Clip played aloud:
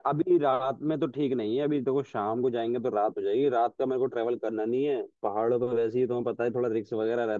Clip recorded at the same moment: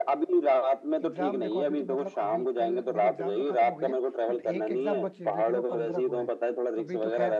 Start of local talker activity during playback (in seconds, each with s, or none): 1.0 s